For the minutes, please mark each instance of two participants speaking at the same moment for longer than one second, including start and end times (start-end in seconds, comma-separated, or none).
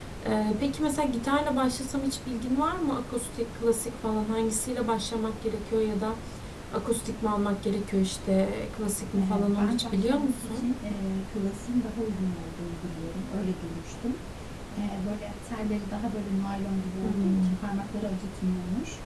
9.2-10.7